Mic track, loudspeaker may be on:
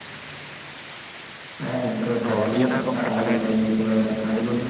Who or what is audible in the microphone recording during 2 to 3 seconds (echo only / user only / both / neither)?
both